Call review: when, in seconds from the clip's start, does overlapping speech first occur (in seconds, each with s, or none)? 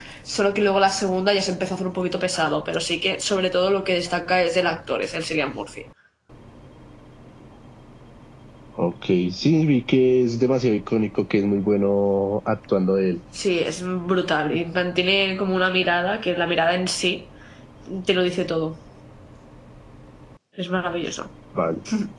none